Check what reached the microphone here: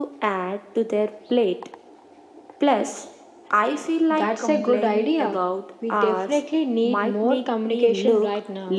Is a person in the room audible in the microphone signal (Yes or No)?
No